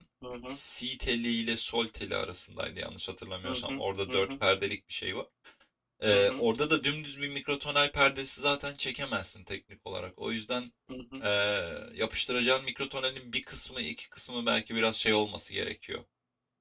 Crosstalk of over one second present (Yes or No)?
No